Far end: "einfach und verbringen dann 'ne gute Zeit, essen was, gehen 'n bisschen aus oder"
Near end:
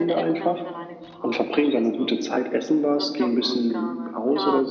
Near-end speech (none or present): present